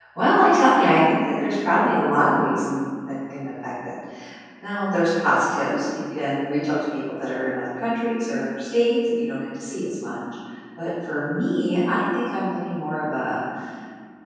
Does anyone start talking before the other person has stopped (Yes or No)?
No